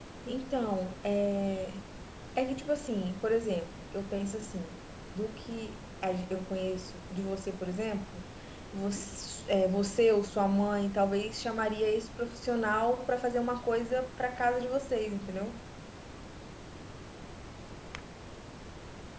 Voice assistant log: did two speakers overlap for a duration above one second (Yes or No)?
No